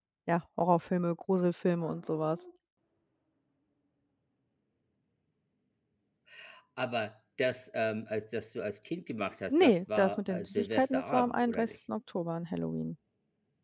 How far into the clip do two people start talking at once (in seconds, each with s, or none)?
9.5 s